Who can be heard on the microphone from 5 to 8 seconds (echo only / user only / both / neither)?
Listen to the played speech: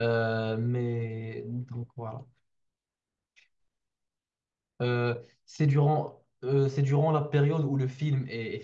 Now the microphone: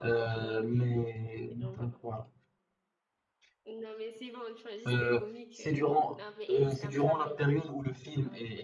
both